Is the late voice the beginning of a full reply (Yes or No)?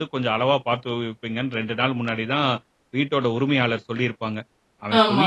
No